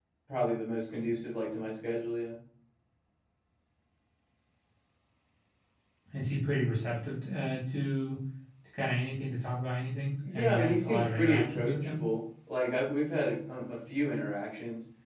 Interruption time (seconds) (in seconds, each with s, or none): 10.2 s